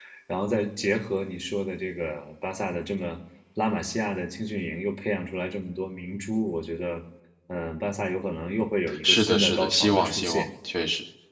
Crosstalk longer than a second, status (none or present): present